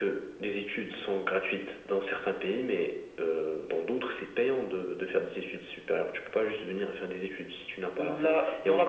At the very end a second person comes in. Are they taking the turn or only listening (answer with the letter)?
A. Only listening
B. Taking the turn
B